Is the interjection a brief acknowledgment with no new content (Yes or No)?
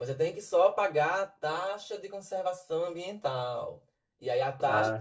Yes